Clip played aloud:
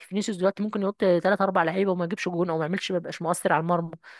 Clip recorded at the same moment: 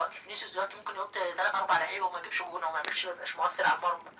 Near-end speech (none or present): none